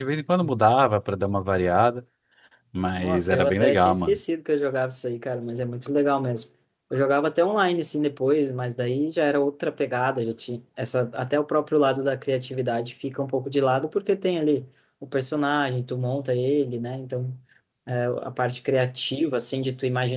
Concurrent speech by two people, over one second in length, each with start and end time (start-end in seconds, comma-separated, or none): 3.0-4.2